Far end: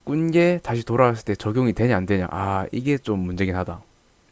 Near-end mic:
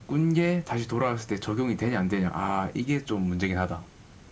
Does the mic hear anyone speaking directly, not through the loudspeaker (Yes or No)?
No